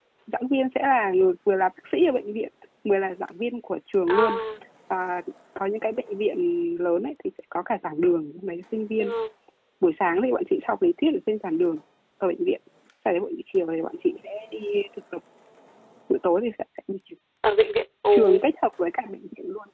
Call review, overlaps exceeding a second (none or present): none